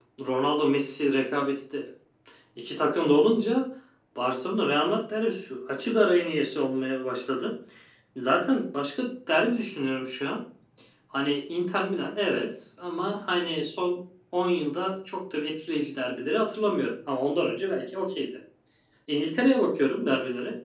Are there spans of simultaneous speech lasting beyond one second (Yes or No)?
No